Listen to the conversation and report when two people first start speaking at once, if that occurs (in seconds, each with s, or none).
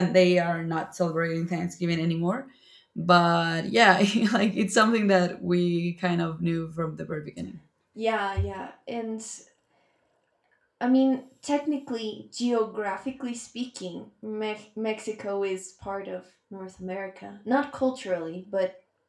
none